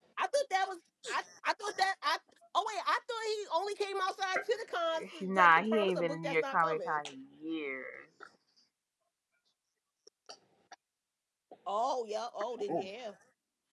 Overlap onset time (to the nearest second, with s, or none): 5 s